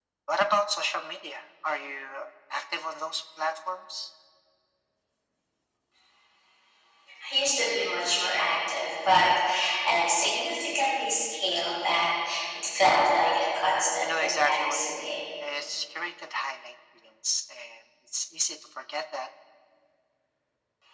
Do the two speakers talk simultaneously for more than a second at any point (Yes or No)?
Yes